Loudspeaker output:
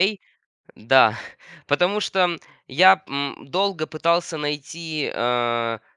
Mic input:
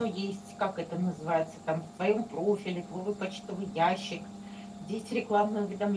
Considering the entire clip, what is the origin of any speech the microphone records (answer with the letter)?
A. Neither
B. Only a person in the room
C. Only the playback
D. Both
B